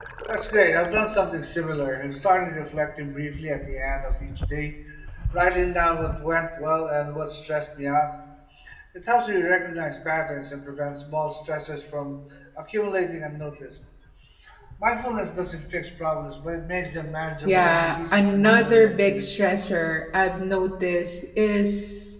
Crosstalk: present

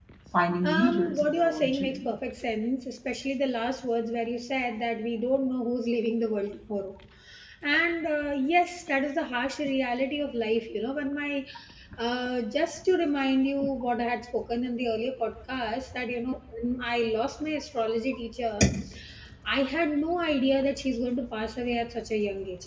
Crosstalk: present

